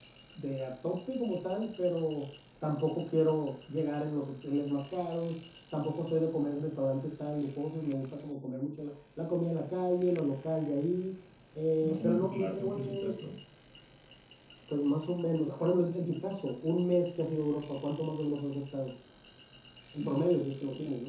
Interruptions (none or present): present